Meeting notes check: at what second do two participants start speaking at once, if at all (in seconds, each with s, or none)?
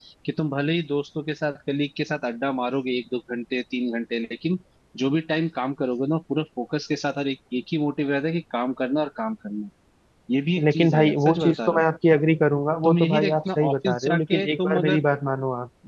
10.6 s